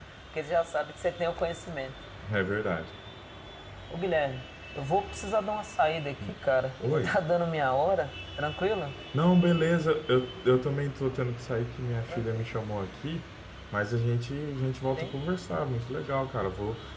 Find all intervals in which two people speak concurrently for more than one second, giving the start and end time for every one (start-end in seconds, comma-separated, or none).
none